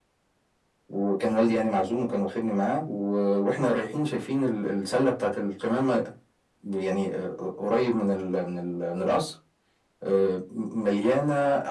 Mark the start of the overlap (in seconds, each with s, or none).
none